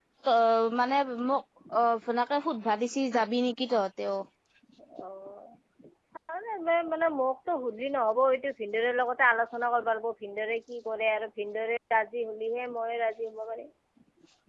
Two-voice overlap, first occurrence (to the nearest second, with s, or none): none